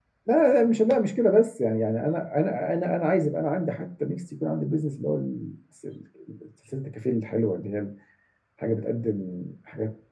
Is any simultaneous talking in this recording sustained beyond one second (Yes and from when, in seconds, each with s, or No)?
No